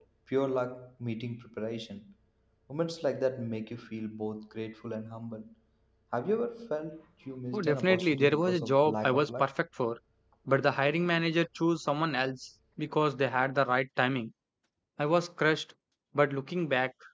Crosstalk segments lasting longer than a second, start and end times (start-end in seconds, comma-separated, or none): 7.5-9.4